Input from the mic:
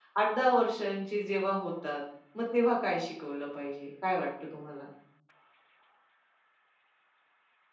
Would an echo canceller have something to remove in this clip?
No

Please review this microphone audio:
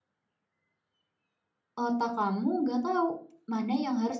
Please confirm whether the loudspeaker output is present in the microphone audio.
No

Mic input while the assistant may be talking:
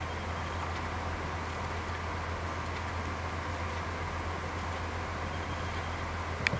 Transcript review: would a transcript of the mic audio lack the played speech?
Yes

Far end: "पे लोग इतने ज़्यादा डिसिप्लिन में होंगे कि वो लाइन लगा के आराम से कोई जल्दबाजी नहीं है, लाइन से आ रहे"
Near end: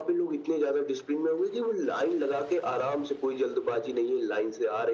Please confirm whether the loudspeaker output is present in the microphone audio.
Yes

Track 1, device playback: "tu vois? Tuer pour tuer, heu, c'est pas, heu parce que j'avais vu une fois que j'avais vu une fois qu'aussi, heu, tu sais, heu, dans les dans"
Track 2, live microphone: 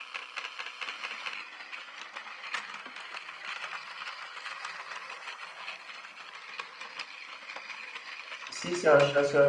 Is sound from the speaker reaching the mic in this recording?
No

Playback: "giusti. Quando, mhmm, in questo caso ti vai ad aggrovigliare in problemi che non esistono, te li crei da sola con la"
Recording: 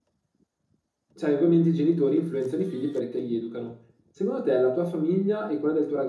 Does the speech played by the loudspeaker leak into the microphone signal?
No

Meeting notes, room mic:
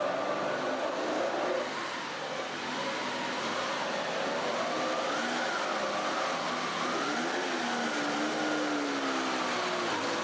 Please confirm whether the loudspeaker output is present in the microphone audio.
No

